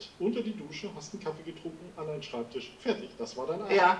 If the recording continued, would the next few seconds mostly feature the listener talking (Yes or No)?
Yes